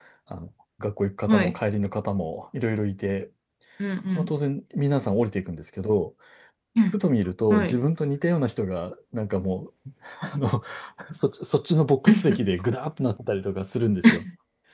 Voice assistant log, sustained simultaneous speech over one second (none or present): none